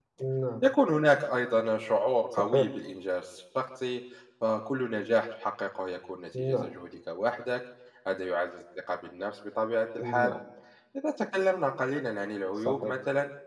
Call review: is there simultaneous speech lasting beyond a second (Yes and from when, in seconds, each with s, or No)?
No